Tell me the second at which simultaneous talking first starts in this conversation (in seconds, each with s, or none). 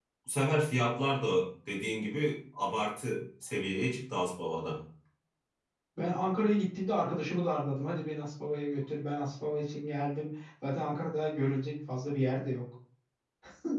none